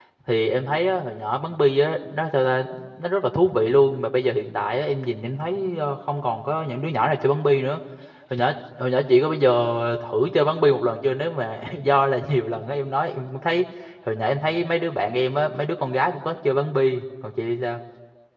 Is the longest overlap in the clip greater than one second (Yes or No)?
No